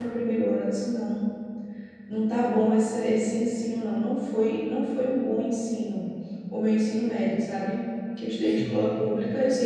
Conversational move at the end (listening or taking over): listening